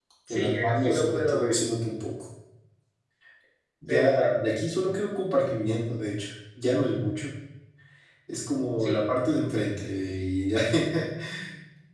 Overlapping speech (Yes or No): Yes